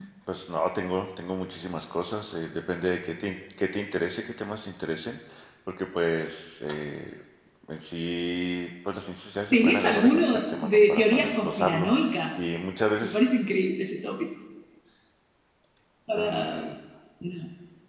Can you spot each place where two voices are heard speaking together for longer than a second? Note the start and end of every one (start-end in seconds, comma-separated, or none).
9.5-11.9